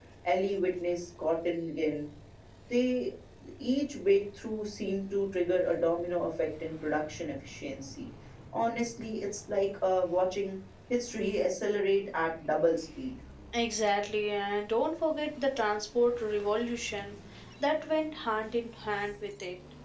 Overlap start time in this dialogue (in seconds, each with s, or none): none